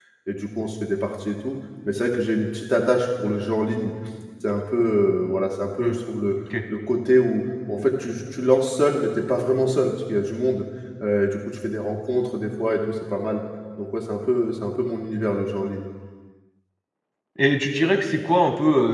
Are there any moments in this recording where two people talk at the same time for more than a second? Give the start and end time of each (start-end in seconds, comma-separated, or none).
none